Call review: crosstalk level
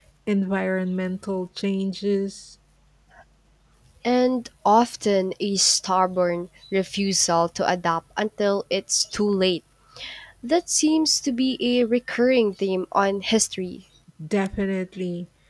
none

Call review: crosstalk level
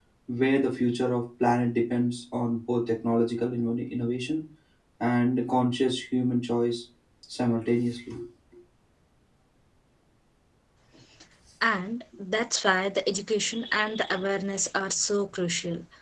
none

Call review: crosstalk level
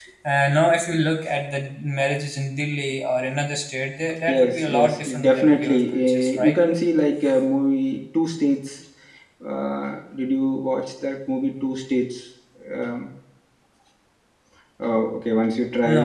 present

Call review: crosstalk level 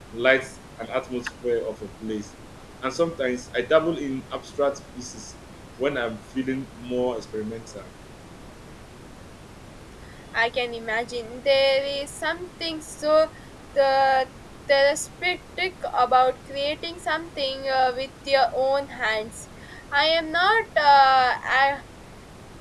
none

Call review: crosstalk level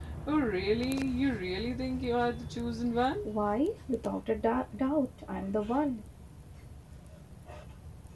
none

